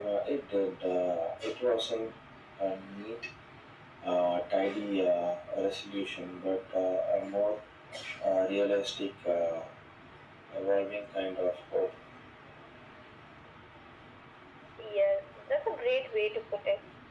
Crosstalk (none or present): none